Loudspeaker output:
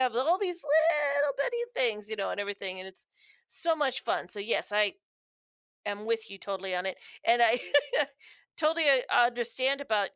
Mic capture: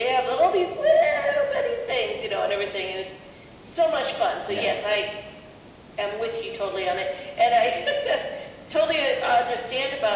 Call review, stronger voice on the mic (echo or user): echo